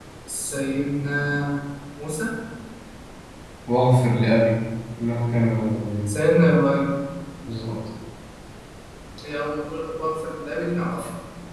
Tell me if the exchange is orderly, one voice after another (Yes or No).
Yes